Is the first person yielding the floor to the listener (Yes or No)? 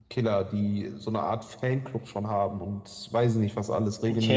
Yes